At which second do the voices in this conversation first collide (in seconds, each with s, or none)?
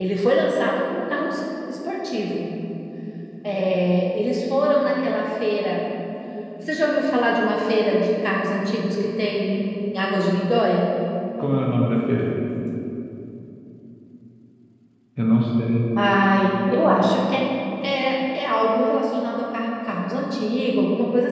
none